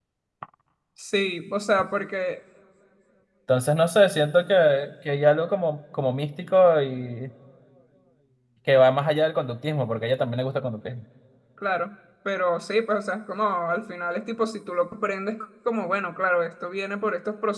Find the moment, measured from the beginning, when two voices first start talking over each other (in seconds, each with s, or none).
none